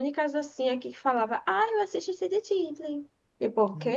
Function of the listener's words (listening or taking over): taking over